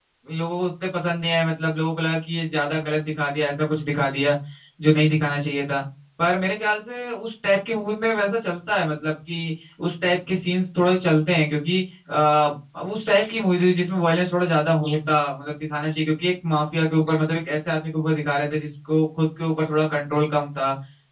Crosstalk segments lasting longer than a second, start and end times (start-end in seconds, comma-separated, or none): none